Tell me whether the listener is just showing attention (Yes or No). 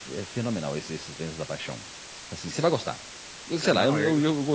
Yes